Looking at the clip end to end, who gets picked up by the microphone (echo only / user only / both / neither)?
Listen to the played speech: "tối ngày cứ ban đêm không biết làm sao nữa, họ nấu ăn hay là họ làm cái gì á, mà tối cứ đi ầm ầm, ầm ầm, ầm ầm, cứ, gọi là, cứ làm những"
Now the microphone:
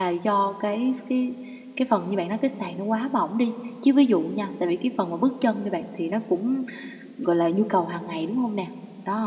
user only